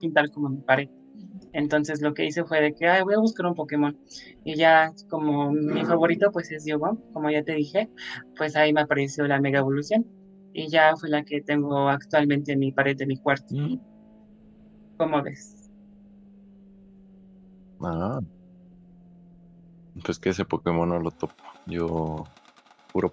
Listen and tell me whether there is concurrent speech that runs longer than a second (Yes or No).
No